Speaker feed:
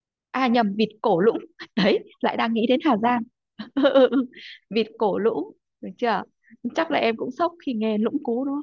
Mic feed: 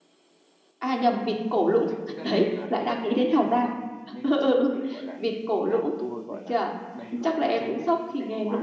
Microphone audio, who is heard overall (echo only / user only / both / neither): both